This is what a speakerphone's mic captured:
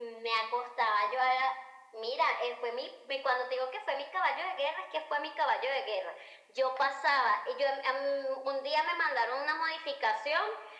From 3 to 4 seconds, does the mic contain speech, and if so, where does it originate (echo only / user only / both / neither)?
echo only